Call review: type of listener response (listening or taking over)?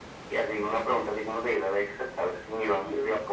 taking over